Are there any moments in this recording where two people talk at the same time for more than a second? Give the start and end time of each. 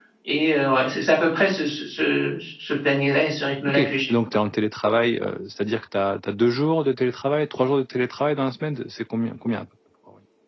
none

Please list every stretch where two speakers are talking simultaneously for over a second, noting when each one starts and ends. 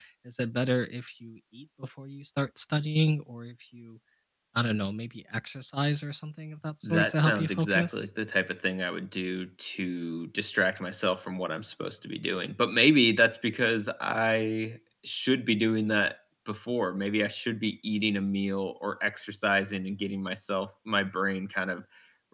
6.8-8.1

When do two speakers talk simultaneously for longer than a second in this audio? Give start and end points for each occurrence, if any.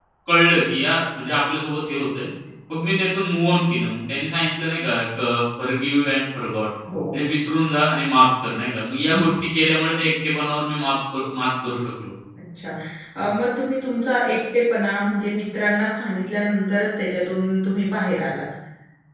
none

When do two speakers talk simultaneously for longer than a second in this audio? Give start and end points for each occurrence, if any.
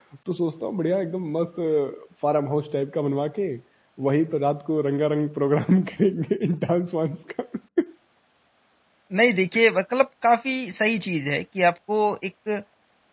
none

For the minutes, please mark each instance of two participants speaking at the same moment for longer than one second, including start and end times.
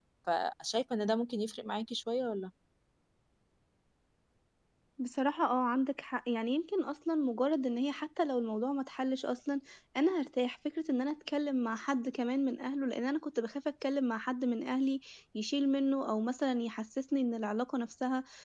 none

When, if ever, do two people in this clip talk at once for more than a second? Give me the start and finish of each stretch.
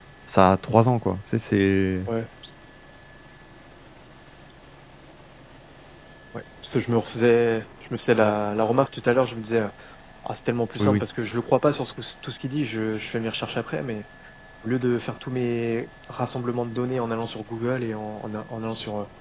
none

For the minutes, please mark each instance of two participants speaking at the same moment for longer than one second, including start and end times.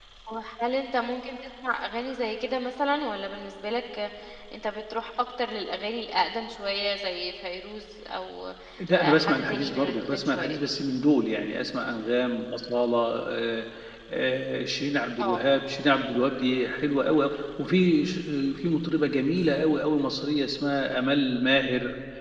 8.9-10.6

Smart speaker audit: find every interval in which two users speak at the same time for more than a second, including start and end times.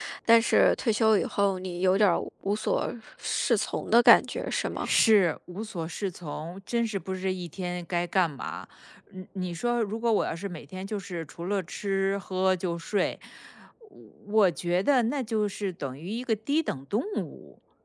none

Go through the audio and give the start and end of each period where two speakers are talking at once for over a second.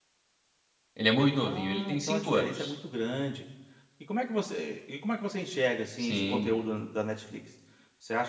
1.4-2.7

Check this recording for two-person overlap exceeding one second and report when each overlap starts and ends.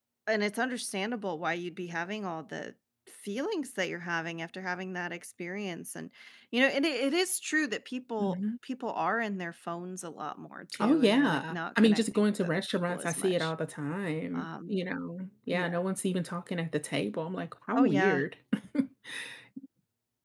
10.8-13.5

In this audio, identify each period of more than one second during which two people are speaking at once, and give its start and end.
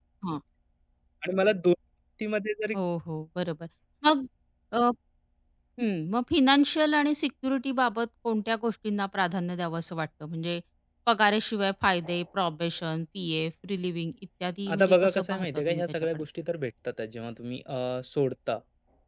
14.7-16.2

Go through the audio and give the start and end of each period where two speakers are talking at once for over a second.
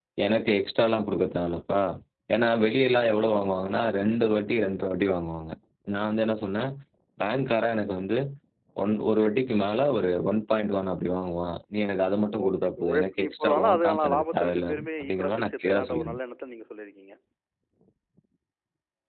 12.4-16.2

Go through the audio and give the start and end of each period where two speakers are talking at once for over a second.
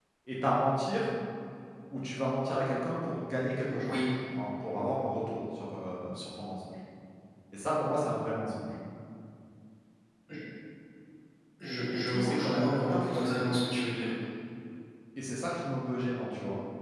11.9-13.5

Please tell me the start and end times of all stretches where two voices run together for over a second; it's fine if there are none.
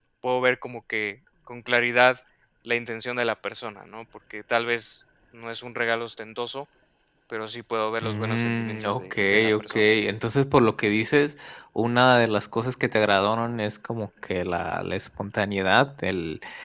8.0-9.9

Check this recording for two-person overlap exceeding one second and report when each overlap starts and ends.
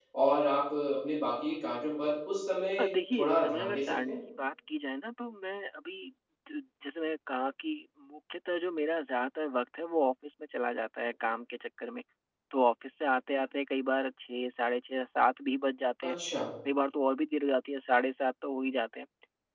2.8-4.2

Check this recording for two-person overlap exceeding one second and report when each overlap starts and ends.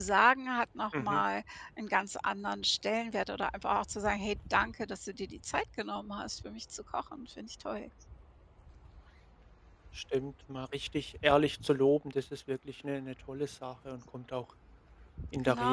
none

